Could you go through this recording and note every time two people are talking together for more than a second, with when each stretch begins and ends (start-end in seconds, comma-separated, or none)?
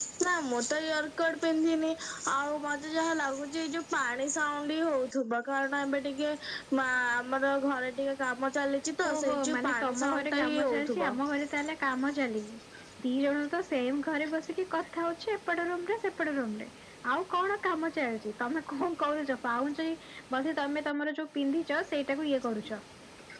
9.1-11.1